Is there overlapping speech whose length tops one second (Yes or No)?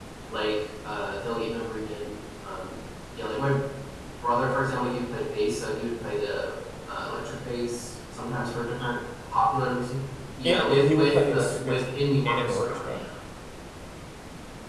Yes